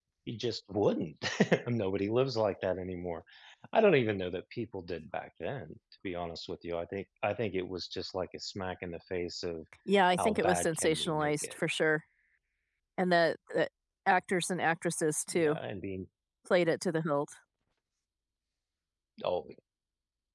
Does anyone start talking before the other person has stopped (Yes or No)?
Yes